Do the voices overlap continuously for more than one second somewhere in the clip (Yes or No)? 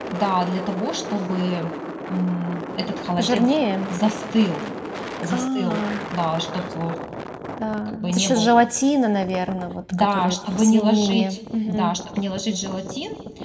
Yes